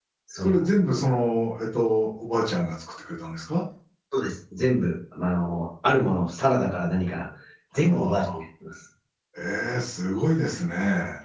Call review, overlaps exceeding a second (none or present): none